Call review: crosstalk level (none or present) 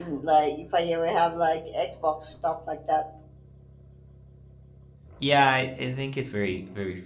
none